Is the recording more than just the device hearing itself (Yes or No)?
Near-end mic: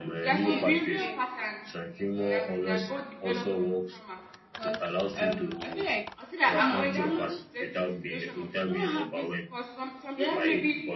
Yes